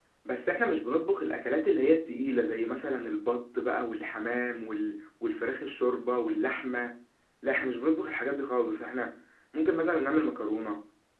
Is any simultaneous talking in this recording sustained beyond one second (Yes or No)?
No